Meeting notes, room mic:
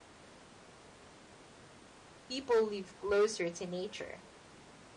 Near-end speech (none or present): present